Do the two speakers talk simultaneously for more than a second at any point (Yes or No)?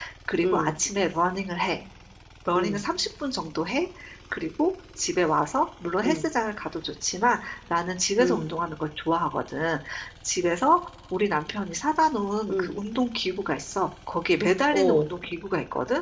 No